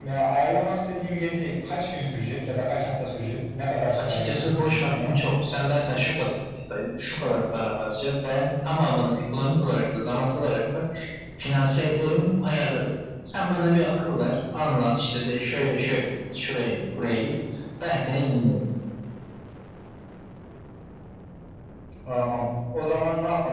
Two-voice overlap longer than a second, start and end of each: 4.0-5.2

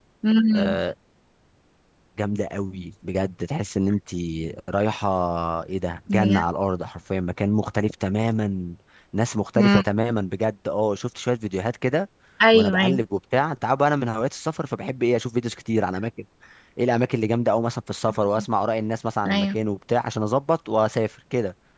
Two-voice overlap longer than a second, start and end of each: none

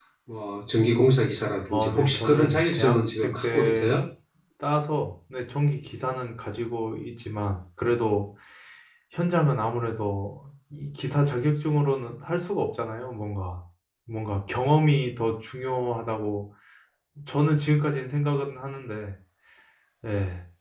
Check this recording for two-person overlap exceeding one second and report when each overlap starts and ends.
1.7-3.9

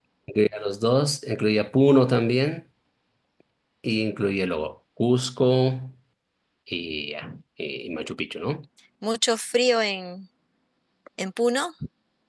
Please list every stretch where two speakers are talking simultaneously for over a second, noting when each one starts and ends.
none

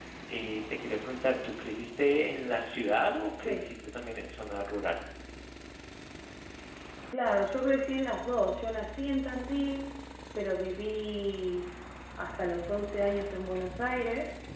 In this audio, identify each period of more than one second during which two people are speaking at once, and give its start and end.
none

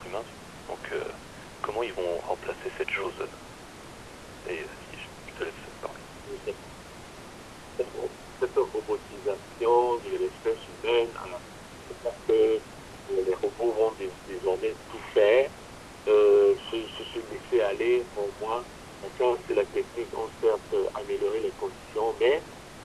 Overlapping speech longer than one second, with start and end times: none

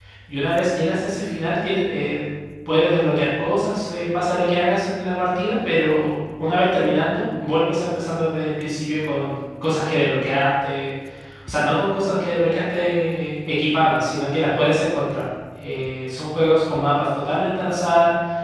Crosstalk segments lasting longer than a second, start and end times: none

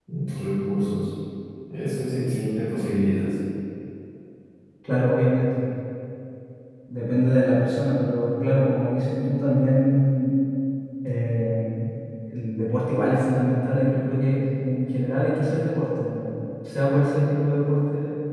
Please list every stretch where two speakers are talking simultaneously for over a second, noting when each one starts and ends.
none

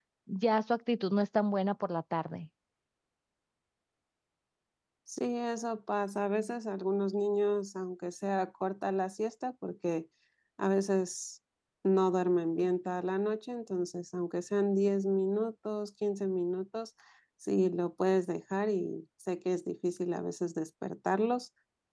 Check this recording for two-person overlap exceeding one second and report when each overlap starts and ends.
none

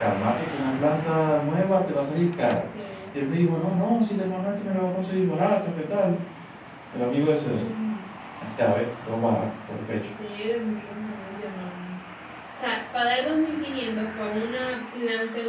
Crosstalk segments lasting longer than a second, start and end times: none

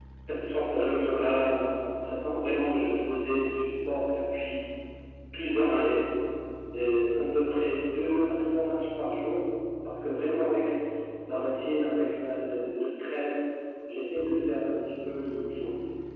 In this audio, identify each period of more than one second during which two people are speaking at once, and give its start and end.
none

